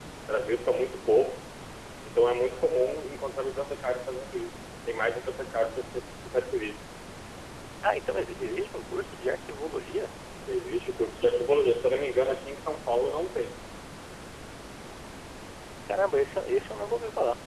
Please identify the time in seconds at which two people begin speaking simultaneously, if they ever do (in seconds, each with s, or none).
none